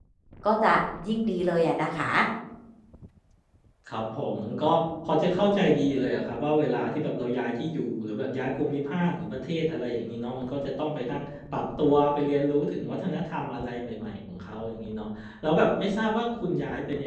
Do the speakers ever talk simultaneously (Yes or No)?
No